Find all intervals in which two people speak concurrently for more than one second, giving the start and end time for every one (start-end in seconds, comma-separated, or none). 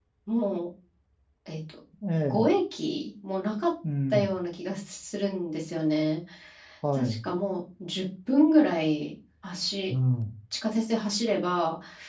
none